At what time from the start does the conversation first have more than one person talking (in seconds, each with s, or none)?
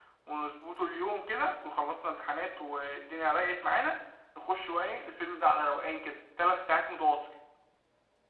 none